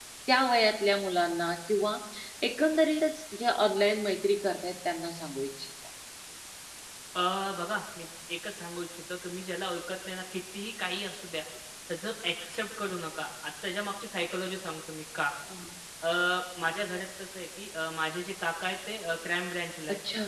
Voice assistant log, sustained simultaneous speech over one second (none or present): none